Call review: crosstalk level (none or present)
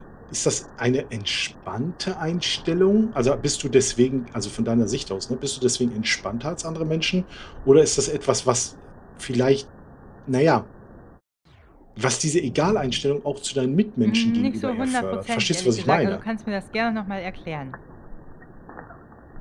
present